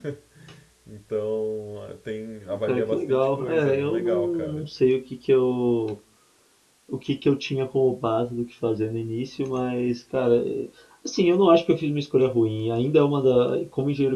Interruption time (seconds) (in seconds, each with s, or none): 2.5 s